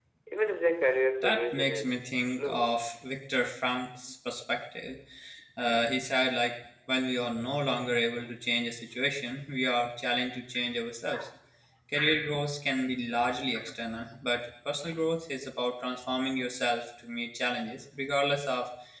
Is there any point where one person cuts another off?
Yes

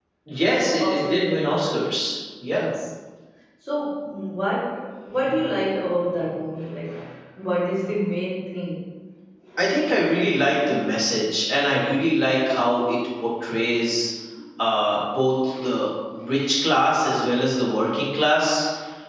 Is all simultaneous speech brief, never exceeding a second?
No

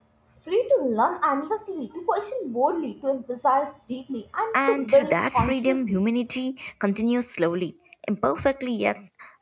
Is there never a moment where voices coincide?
No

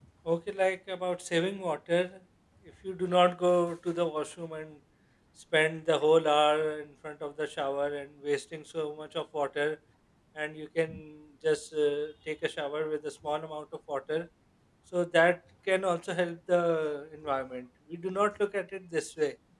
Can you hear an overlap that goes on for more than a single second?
No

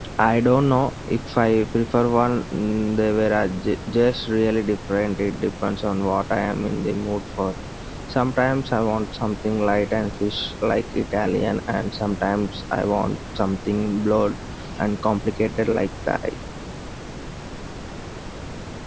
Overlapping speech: No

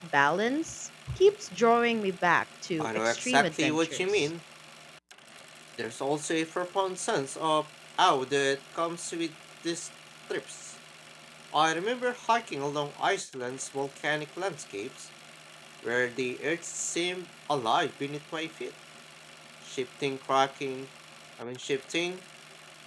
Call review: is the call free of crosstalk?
No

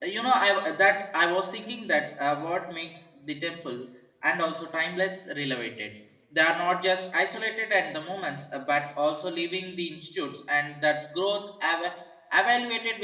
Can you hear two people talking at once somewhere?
No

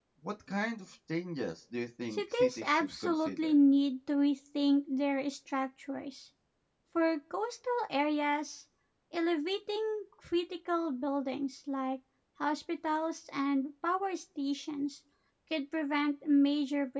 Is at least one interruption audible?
Yes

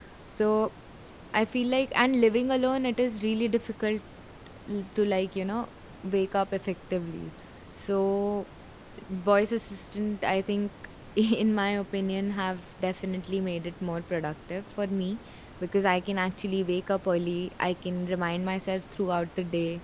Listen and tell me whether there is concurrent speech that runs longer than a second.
No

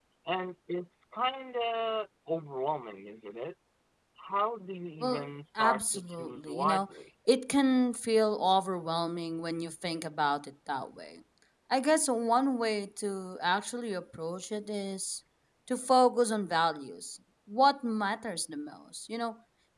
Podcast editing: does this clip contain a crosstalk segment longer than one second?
Yes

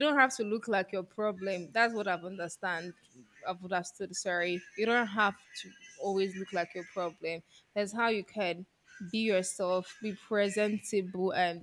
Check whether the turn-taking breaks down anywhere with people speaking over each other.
No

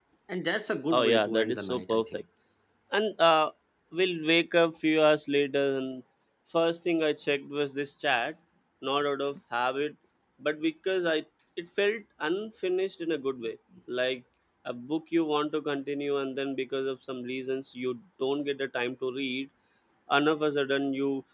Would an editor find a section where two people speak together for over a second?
Yes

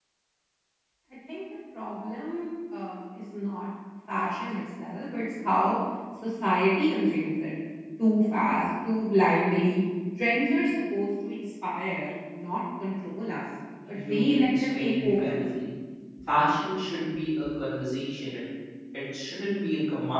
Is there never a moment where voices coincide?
No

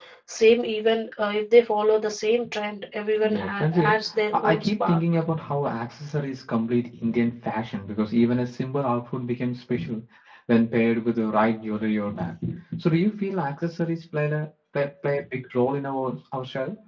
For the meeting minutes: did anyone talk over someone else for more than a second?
Yes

